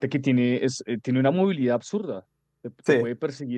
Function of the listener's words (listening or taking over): listening